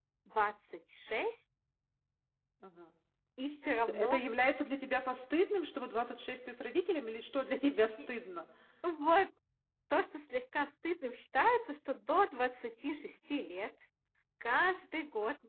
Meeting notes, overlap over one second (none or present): none